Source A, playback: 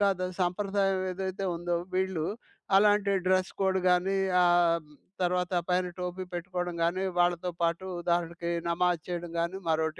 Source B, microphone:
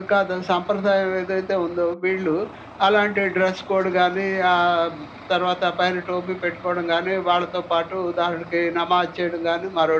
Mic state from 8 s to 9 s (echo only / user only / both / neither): echo only